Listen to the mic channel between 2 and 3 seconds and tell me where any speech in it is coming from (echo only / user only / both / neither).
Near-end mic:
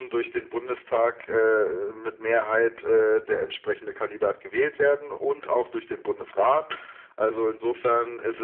echo only